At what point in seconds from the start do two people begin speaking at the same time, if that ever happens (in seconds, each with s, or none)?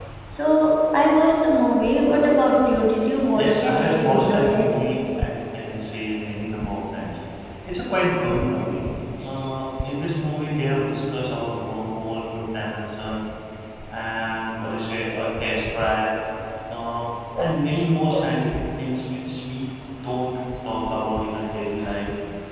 3.4 s